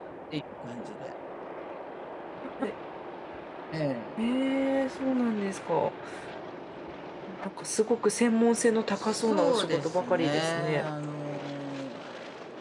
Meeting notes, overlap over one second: present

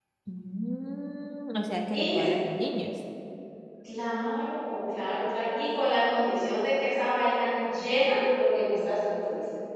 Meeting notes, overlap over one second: none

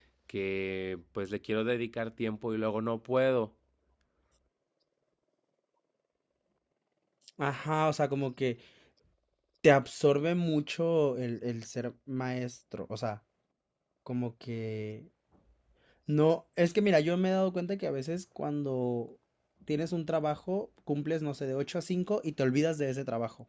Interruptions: none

